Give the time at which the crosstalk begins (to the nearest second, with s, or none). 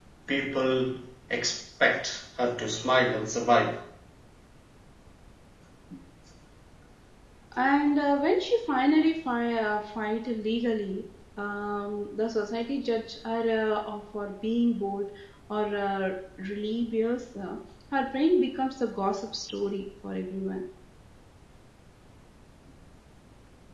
none